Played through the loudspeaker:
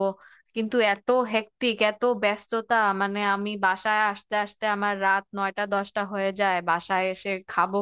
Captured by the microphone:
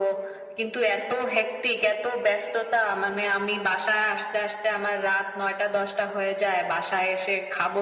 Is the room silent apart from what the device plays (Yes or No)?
Yes